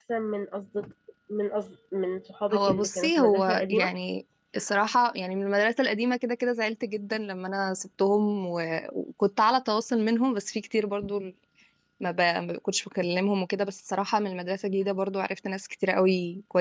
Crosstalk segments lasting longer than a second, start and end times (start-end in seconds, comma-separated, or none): 2.5-3.9